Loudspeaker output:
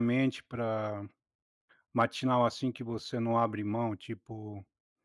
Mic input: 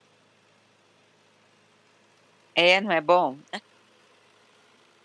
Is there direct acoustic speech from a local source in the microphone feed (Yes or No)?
Yes